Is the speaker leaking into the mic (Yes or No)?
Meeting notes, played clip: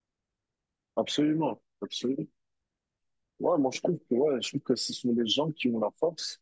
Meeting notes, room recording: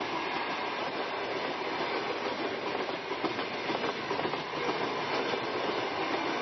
No